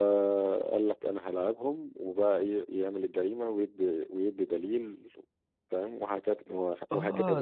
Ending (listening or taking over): taking over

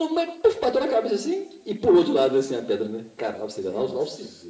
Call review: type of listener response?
listening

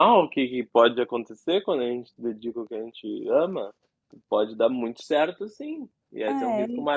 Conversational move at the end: listening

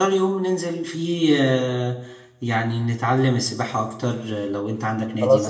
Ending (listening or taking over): taking over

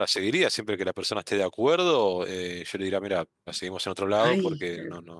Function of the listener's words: listening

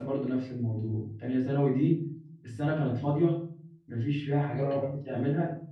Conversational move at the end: listening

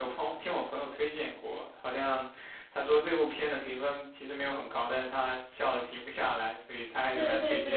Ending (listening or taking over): taking over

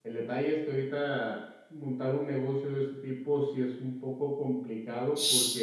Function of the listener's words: listening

